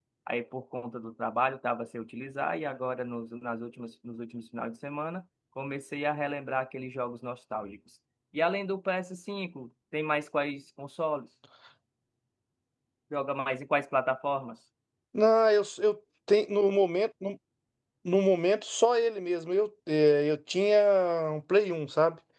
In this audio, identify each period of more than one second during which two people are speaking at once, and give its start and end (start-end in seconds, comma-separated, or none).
none